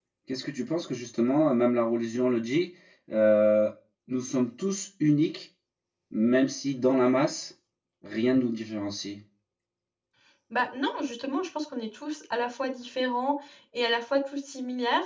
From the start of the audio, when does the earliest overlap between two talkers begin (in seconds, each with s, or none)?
none